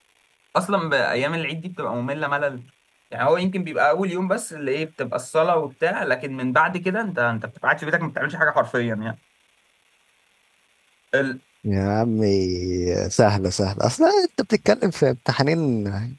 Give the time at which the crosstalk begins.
none

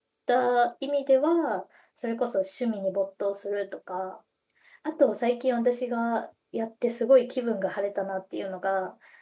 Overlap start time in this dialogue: none

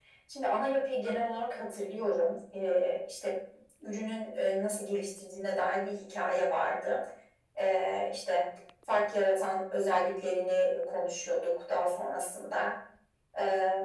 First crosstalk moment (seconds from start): none

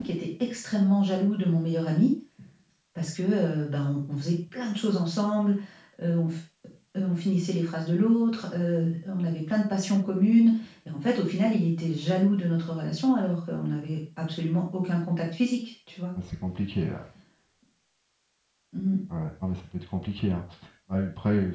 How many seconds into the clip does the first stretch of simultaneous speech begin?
none

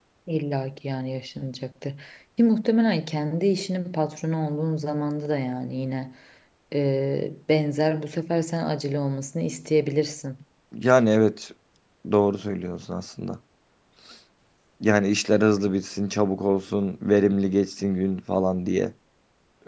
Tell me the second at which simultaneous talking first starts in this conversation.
none

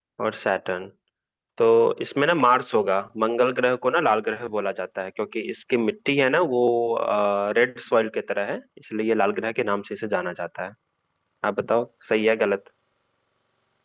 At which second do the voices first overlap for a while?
none

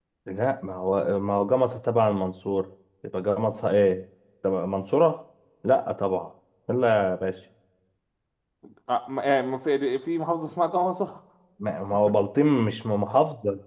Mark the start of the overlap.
none

